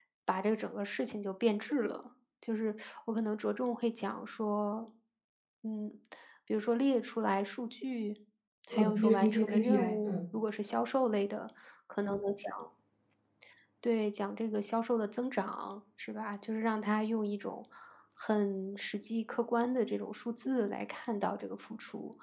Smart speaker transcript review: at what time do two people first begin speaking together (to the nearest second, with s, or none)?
9 s